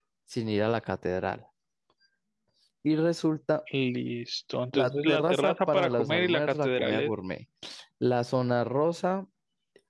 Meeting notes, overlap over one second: present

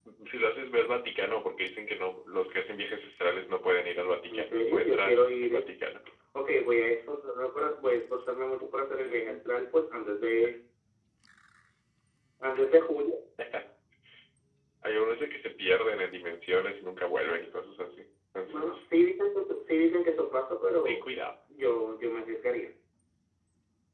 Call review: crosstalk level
present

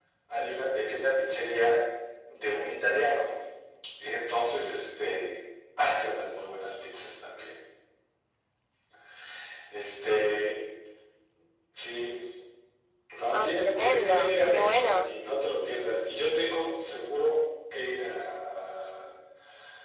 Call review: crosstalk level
present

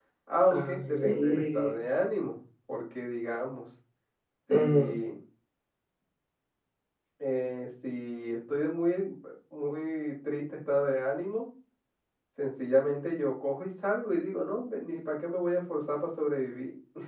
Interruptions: present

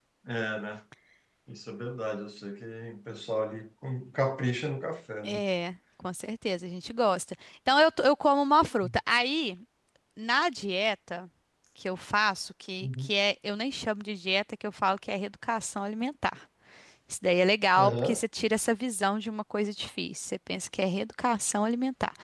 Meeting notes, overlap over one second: none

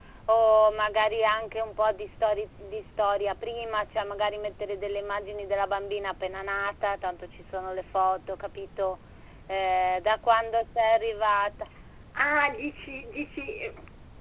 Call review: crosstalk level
none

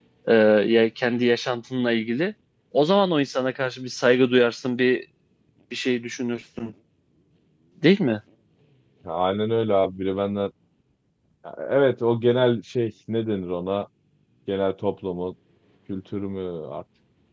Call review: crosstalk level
none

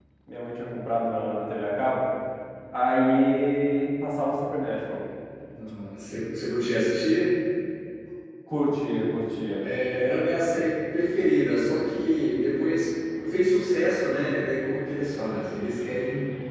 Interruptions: none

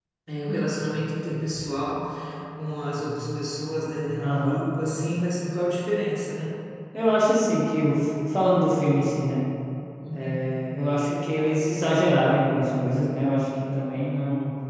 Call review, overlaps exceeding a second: none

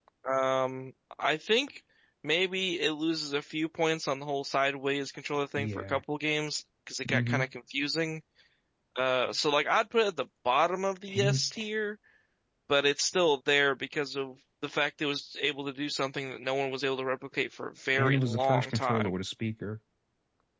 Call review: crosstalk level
present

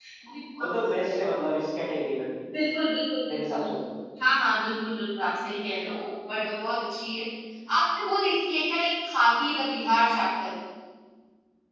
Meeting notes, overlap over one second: none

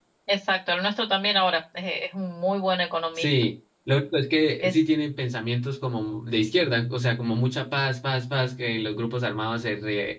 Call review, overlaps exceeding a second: none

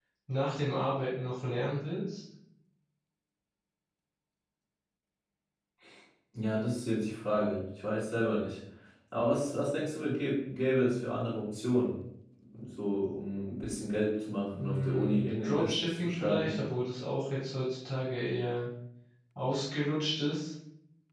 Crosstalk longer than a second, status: present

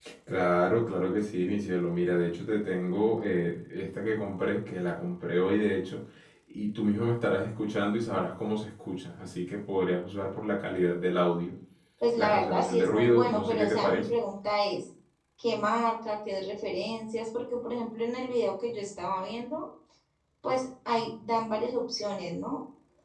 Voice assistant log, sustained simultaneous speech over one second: present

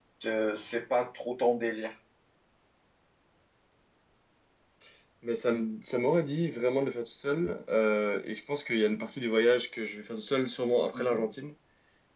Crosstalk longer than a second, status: none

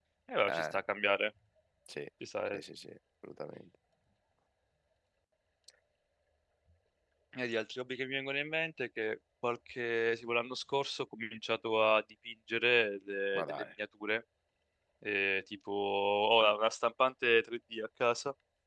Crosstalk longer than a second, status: none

